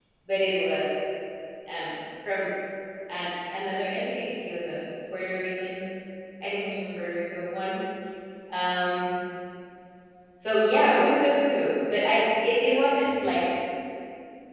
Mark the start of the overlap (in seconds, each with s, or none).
none